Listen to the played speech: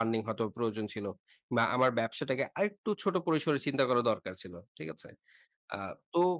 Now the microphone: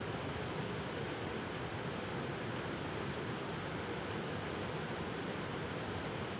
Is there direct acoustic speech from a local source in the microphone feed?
No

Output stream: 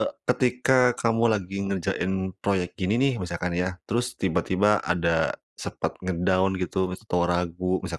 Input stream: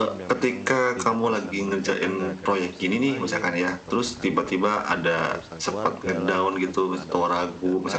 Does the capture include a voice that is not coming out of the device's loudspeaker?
Yes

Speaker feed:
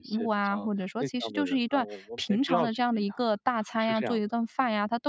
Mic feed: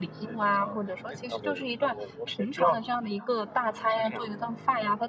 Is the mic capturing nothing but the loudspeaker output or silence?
Yes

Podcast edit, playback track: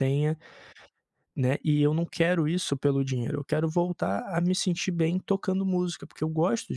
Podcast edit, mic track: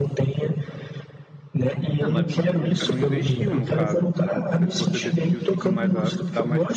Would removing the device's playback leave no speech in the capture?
No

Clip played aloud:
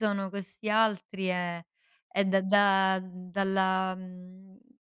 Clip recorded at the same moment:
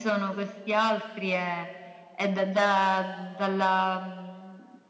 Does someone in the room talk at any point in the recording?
No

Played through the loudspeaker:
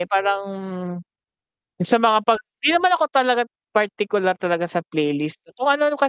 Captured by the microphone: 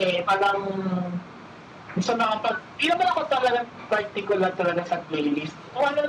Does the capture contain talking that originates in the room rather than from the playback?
No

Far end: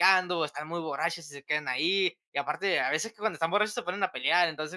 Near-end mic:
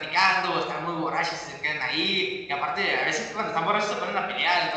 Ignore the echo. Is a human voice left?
No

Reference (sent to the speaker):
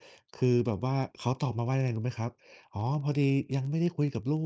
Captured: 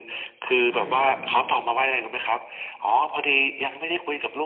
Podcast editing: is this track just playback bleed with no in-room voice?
No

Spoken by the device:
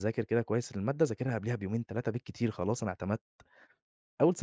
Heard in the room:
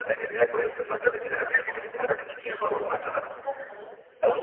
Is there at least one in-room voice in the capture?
Yes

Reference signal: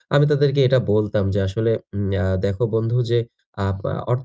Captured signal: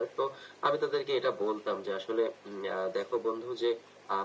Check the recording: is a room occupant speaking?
No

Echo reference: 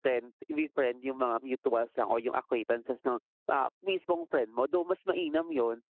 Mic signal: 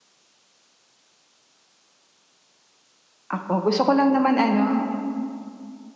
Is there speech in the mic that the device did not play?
Yes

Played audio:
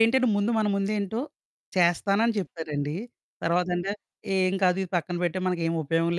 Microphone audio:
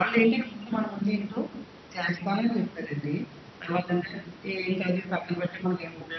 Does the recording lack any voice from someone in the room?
Yes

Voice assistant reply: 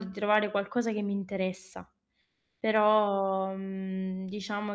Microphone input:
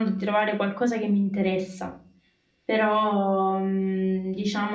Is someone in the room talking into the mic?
No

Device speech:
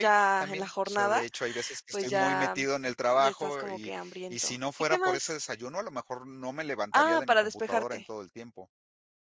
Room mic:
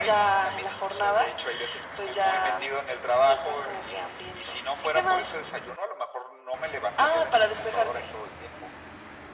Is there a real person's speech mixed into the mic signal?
No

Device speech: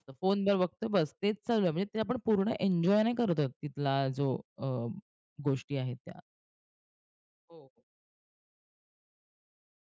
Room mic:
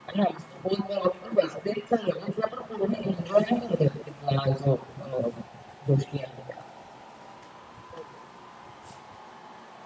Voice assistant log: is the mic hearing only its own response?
Yes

